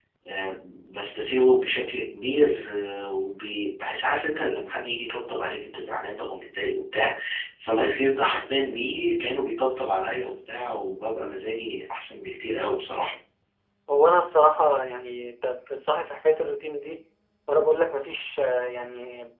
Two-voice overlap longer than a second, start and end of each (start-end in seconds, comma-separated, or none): none